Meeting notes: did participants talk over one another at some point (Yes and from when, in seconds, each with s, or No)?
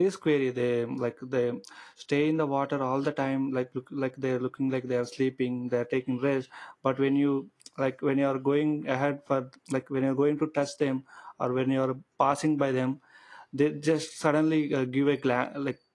No